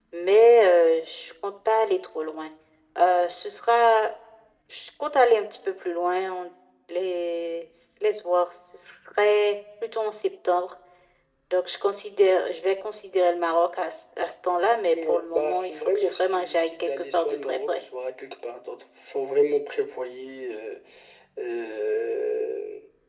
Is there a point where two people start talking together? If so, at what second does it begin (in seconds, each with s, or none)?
14.9 s